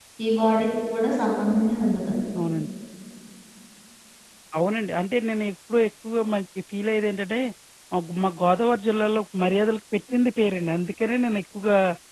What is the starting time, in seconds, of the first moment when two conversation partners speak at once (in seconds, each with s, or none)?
none